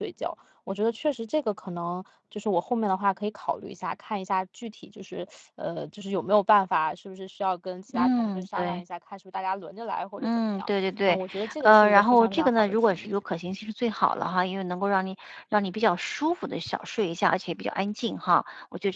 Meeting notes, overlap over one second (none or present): present